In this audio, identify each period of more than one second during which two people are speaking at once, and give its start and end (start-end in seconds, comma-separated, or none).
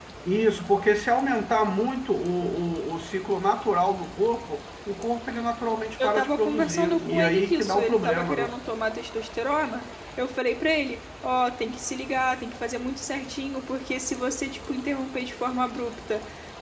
6.0-8.5